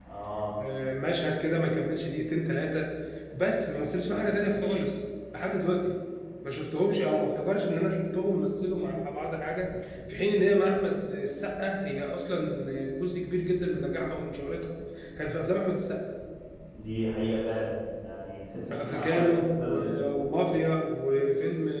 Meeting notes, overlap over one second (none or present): present